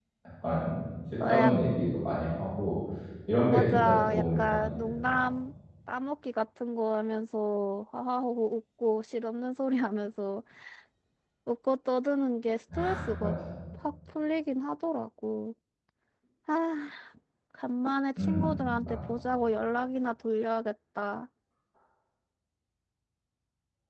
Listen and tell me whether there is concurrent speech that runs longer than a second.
Yes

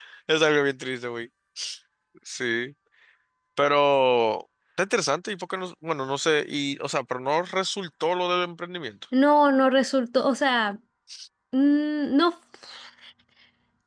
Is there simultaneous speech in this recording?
No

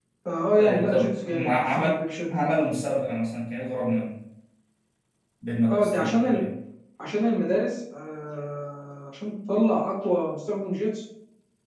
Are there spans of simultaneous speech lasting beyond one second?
Yes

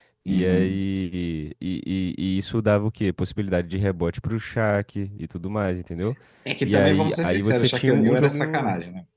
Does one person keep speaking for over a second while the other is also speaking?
Yes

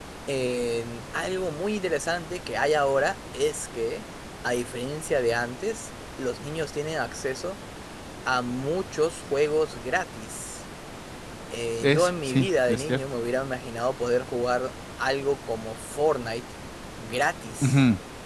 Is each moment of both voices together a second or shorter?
No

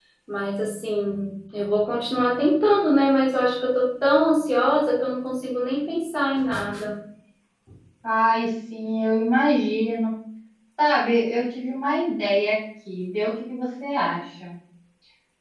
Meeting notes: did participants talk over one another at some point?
No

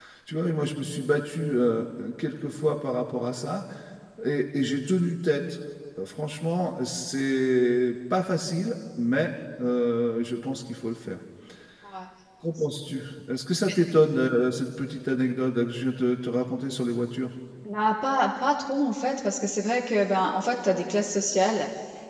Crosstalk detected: No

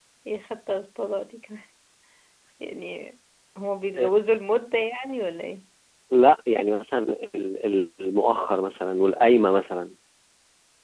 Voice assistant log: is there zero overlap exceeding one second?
Yes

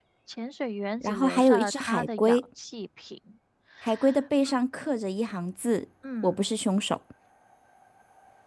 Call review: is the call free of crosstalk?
No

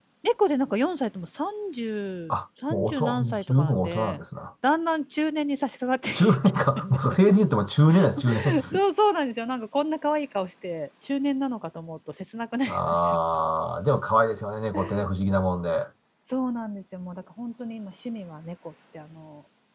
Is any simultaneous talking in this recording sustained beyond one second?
Yes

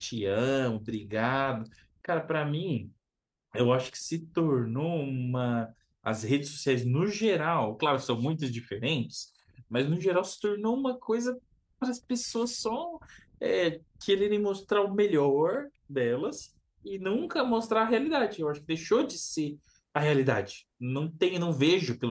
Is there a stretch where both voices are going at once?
No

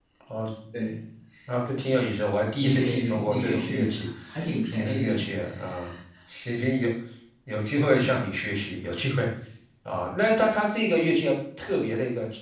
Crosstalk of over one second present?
Yes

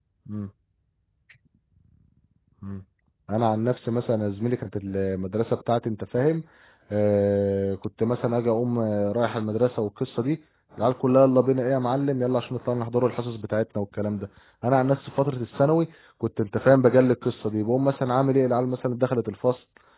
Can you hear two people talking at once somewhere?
No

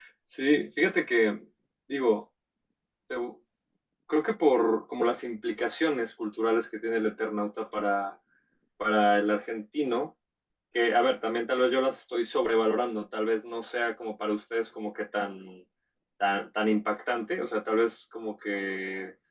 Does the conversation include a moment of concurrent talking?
No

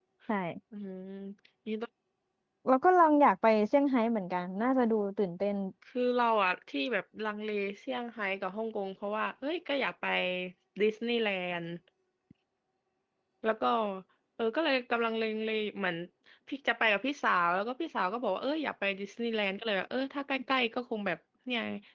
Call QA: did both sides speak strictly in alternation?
Yes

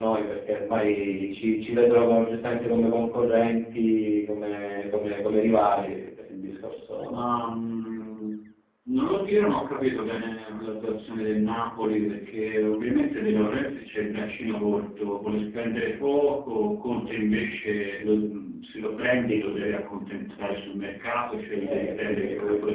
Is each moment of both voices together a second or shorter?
No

